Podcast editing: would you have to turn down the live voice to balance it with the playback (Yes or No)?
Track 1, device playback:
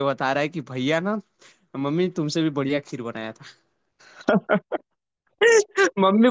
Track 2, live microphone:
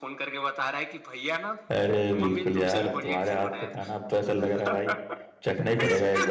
Yes